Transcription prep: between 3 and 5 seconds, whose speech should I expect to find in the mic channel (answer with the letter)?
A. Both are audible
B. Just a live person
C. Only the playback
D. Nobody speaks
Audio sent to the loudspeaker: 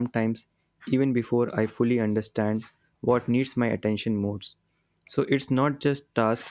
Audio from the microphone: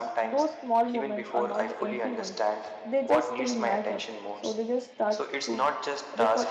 A